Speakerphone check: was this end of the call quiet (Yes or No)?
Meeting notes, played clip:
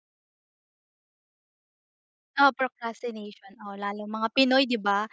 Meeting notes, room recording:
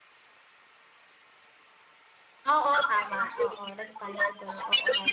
No